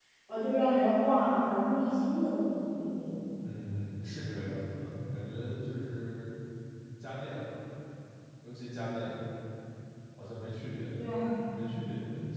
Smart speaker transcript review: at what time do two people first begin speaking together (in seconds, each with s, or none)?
none